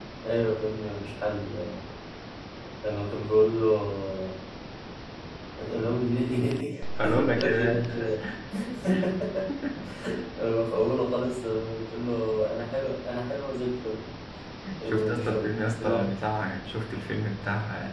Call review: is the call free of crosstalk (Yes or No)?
No